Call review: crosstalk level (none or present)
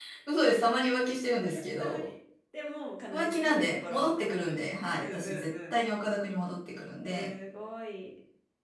present